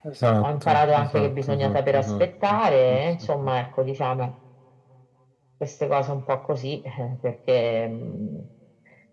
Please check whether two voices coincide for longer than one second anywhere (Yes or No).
Yes